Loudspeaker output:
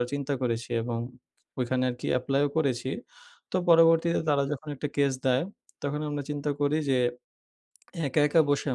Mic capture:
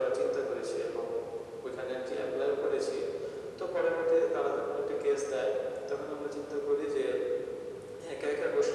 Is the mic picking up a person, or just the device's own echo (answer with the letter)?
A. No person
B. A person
A